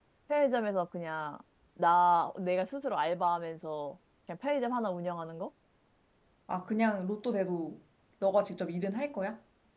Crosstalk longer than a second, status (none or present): none